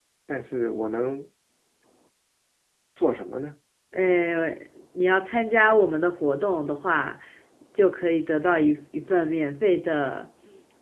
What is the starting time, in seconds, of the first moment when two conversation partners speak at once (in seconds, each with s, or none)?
none